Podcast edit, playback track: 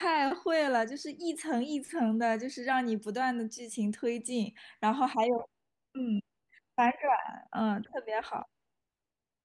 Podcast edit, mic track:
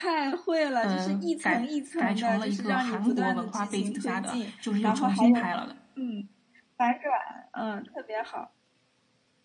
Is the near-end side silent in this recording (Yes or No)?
No